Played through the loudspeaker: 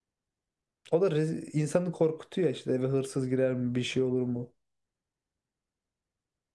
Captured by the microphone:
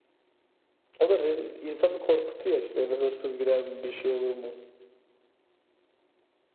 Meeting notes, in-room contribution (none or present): none